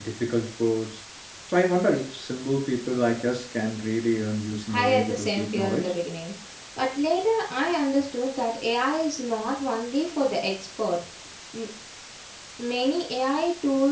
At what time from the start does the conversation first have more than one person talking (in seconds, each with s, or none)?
4.7 s